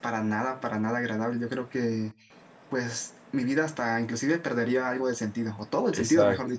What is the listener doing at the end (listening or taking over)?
taking over